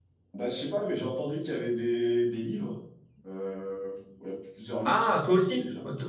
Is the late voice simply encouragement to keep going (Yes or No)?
No